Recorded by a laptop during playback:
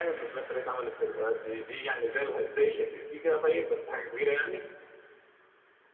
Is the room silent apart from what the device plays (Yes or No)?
Yes